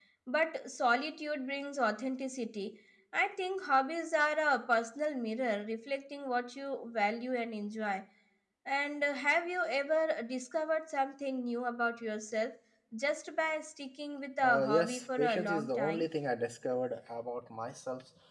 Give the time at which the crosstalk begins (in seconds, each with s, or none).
14.4 s